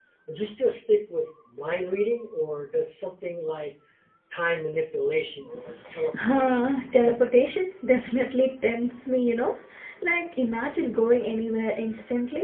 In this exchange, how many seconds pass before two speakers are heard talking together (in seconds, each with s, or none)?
6.1 s